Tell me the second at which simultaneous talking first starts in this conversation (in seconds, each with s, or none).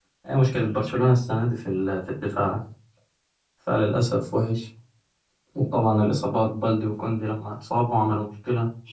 none